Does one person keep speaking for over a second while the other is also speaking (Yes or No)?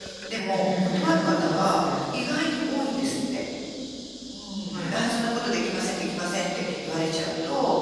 Yes